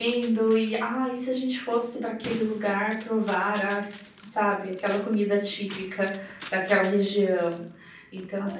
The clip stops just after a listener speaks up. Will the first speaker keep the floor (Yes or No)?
Yes